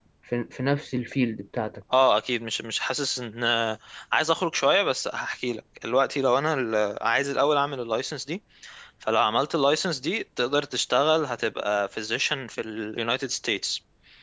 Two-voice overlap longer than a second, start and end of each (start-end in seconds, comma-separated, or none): none